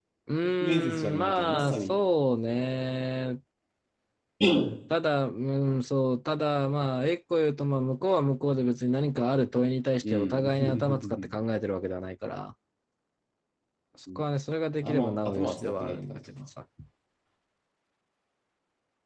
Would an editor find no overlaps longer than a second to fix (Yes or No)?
No